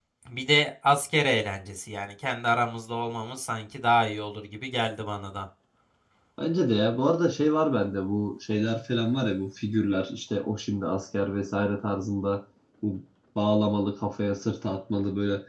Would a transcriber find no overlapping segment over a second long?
Yes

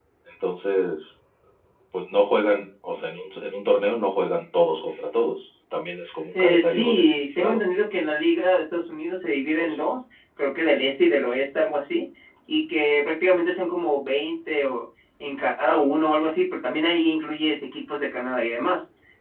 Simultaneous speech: Yes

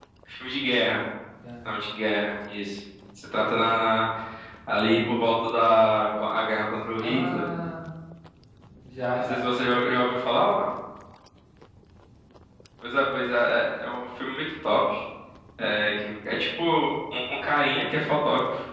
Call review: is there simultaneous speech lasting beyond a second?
No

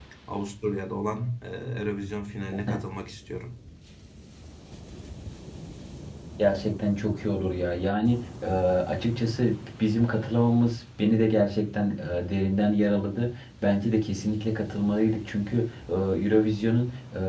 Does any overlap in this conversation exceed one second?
No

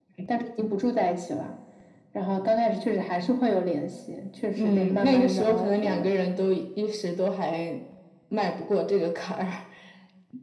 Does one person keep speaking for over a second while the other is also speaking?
Yes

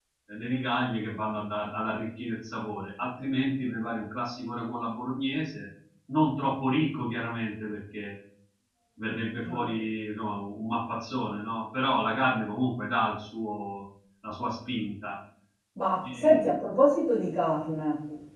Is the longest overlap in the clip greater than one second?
No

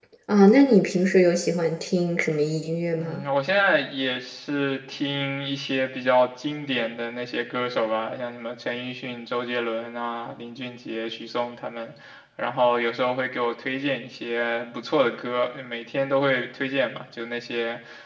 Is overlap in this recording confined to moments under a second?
Yes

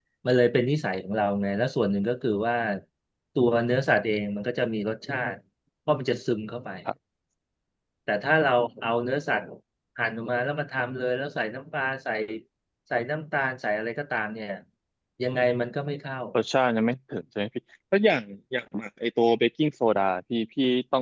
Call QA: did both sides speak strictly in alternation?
Yes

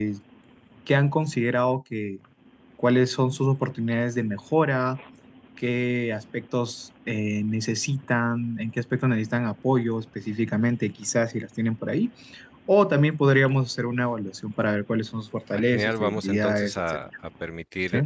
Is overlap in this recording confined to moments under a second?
No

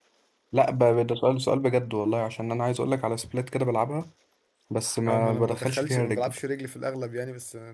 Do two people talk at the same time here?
Yes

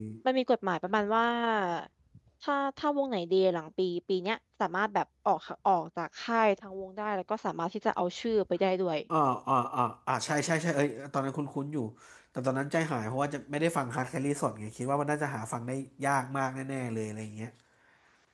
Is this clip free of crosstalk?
Yes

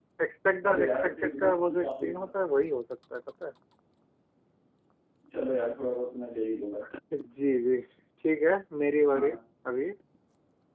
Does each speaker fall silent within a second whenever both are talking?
No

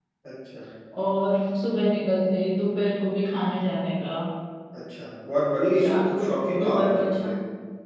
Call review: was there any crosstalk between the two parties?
Yes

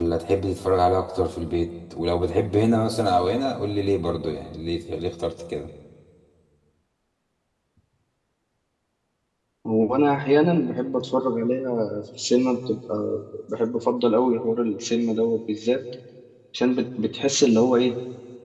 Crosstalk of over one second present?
No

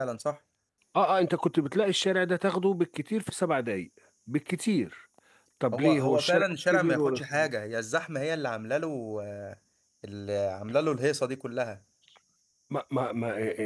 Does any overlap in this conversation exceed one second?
Yes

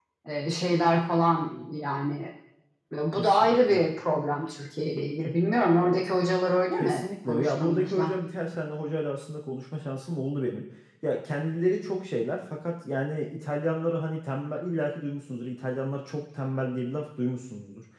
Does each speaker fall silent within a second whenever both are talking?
No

